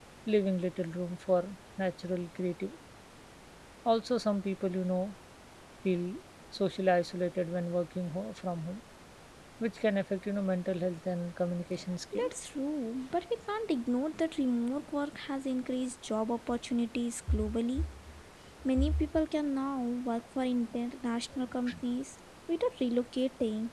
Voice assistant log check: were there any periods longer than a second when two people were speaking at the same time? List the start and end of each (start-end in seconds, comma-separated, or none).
none